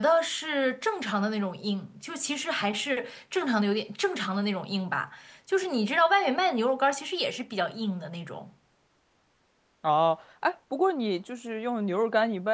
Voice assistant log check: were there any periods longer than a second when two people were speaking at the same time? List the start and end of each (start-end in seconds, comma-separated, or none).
none